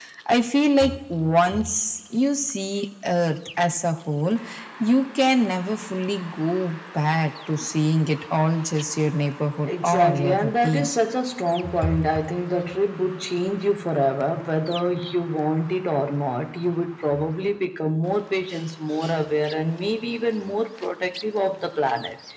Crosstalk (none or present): present